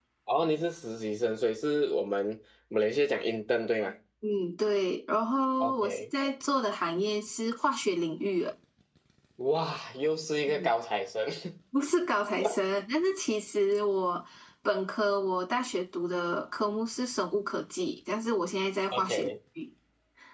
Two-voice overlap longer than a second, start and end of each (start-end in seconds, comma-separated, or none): none